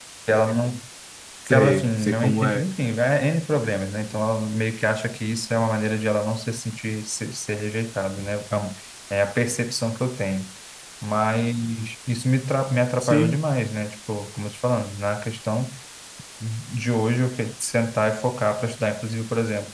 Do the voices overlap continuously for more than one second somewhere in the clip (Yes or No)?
Yes